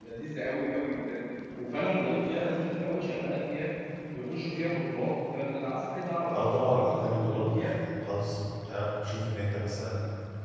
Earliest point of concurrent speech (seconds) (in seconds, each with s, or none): 6.3 s